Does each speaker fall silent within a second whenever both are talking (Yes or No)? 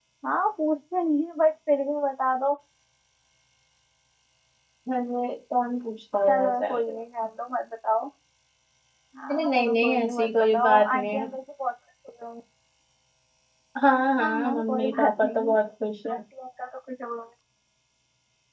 No